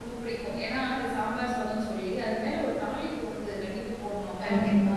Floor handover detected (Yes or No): No